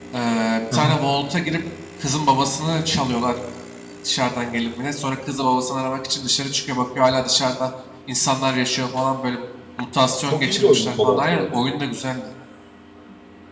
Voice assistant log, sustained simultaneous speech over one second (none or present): present